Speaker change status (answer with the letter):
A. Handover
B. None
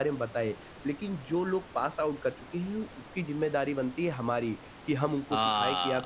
B